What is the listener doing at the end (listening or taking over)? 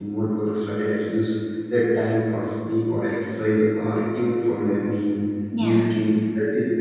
listening